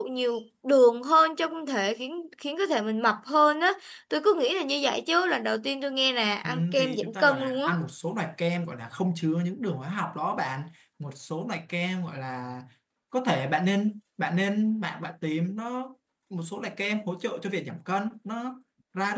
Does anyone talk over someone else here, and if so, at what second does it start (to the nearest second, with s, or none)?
6 s